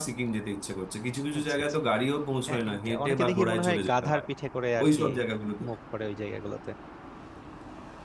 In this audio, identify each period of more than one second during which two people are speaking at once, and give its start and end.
2.5-4.2

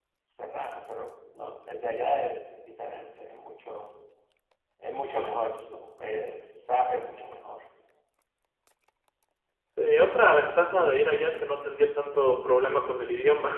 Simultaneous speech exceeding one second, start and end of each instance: none

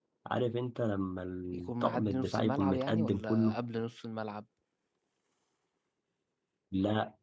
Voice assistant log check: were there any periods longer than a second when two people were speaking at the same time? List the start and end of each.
1.5-3.6

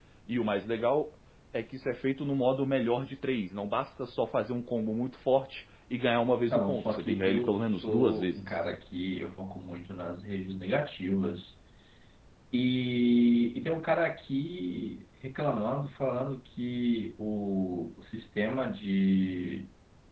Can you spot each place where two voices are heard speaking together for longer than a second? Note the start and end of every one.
6.5-8.4

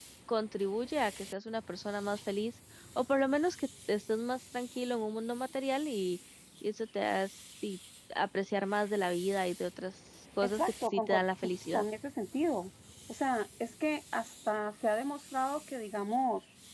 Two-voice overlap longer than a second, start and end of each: 10.4-11.8

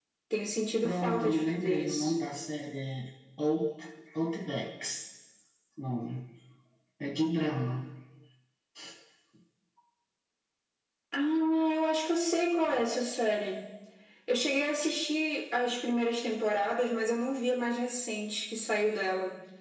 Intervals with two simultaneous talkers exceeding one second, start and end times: 0.8-2.1

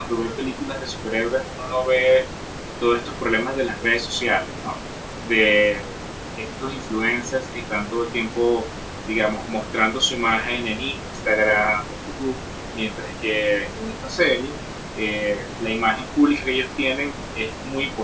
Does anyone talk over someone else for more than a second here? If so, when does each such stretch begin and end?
none

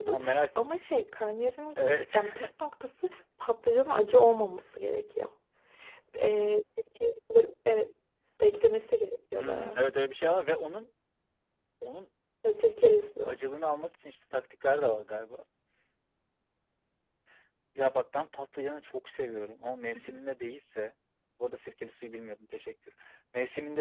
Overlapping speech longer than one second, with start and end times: none

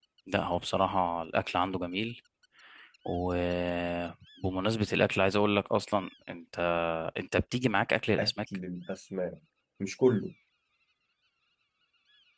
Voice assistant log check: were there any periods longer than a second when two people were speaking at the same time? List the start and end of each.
none

